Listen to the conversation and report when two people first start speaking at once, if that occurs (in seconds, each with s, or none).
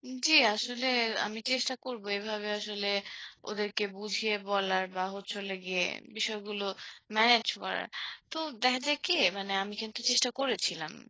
none